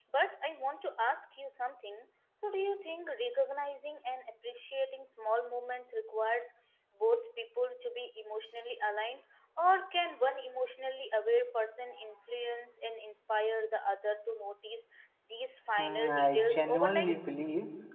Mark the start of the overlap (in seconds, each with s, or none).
15.8 s